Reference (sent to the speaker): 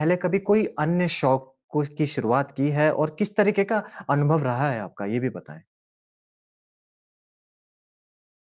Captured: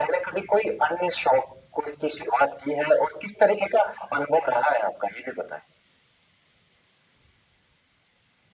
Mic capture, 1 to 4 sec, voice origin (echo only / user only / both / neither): echo only